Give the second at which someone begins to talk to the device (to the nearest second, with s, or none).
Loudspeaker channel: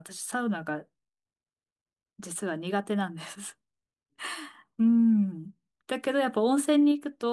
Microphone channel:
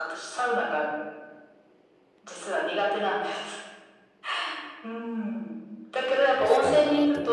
6 s